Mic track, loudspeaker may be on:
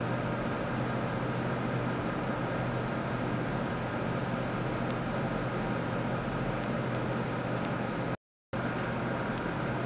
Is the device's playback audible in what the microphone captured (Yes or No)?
No